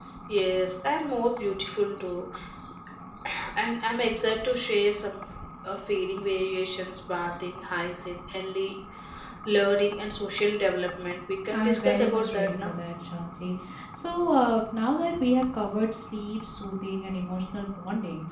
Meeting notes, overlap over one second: present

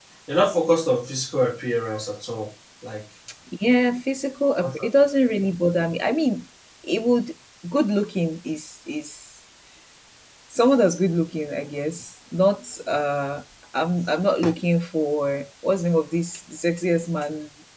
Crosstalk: none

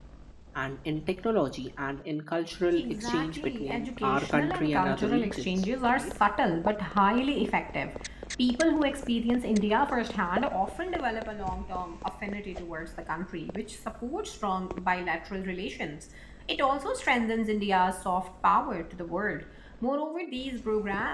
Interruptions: present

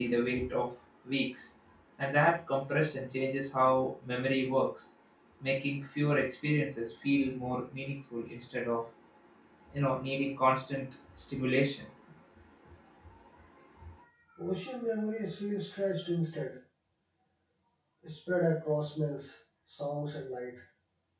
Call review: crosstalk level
none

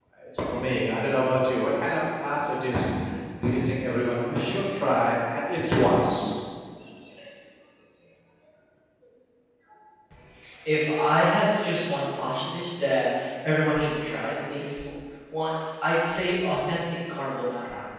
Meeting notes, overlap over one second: none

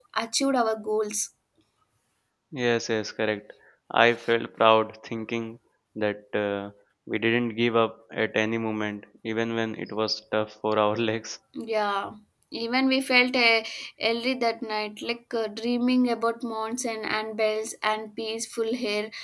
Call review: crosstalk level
none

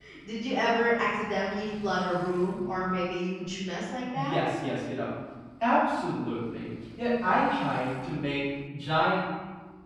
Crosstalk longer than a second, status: none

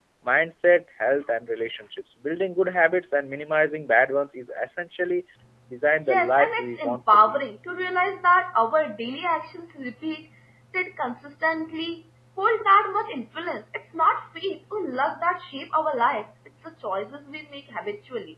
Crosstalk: present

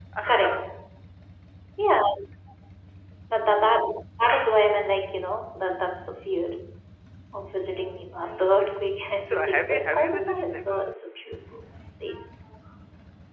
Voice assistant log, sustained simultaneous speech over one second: present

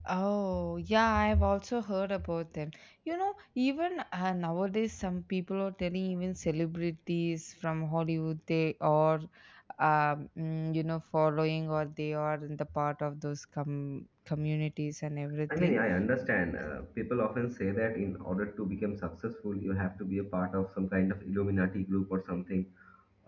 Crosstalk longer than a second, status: none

